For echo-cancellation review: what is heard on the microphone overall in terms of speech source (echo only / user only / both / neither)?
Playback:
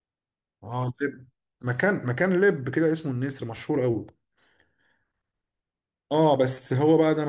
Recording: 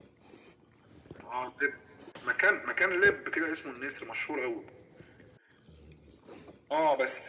echo only